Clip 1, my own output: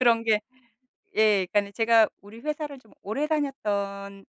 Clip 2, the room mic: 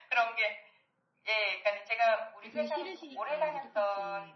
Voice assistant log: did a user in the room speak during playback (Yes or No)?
Yes